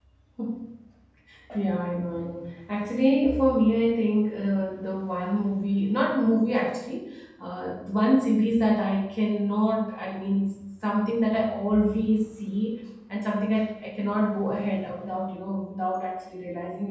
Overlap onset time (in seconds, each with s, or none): none